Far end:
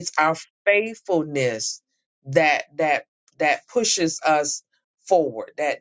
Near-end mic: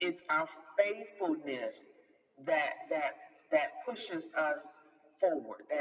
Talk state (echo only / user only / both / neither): echo only